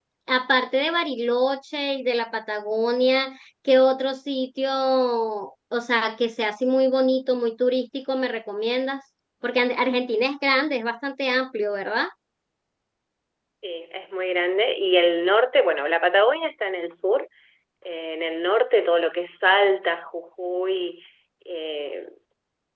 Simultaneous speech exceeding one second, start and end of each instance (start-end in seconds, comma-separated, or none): none